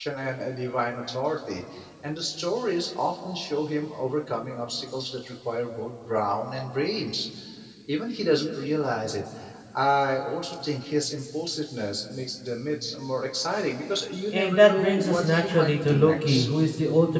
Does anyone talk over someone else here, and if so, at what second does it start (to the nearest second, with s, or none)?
14 s